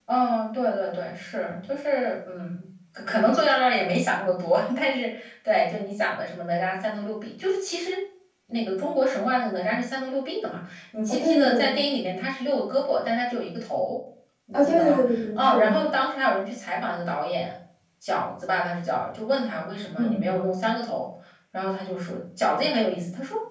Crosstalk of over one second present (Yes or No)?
Yes